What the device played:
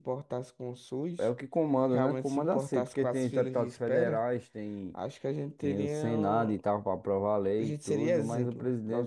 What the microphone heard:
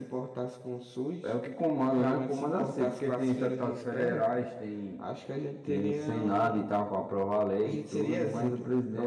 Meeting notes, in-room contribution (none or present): none